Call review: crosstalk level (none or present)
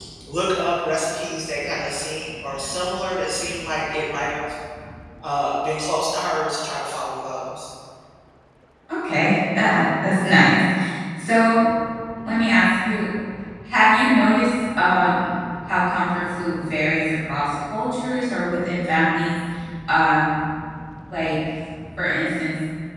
none